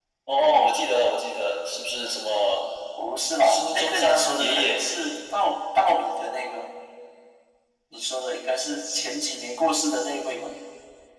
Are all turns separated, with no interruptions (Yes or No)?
No